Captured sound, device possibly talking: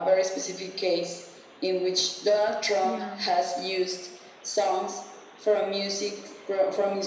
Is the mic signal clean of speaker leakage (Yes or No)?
No